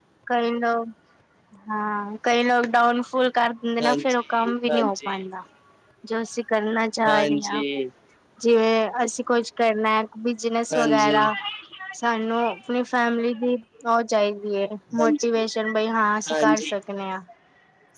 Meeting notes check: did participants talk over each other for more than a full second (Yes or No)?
Yes